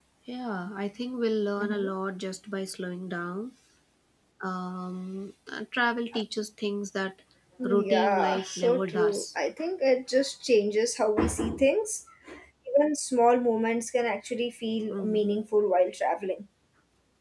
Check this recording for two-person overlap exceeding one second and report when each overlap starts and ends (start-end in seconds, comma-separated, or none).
7.6-9.2